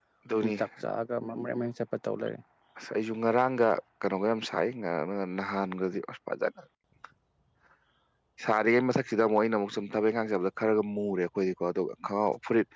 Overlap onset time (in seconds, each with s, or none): none